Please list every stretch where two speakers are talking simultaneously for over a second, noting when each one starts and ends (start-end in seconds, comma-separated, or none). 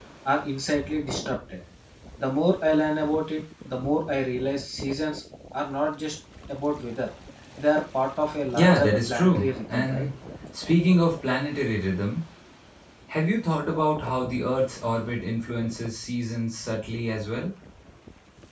8.5-10.1